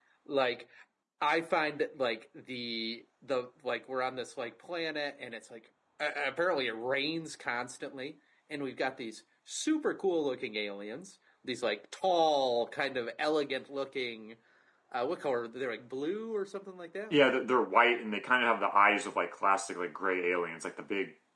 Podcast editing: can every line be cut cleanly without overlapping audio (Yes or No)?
Yes